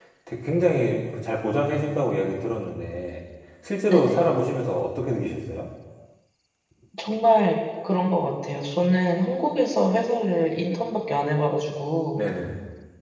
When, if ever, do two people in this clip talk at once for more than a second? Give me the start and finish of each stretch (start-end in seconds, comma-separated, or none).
none